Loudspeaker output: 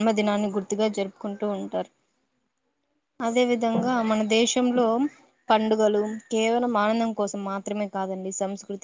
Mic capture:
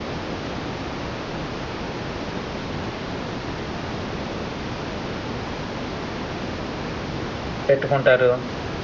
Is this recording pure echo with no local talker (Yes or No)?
No